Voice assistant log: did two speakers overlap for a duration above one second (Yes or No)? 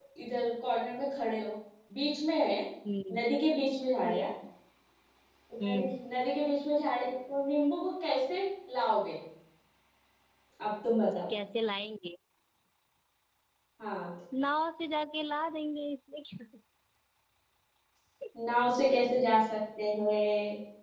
No